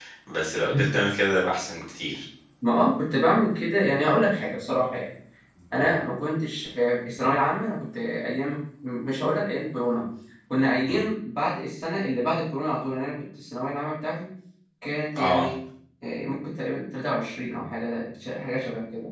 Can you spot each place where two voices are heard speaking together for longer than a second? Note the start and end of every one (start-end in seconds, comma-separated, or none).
none